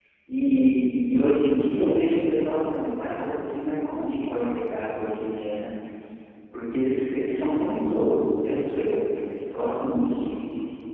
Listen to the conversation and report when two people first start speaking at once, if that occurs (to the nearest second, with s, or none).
none